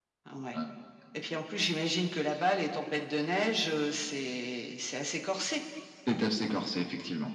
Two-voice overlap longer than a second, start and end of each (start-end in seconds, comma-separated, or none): none